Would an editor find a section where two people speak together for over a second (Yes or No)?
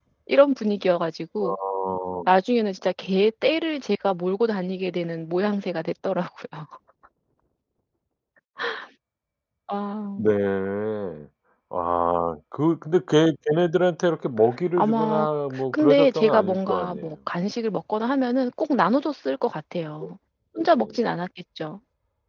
Yes